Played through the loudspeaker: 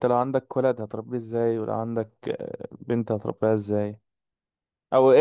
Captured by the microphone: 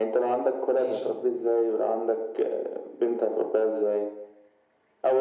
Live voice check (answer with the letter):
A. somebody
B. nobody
A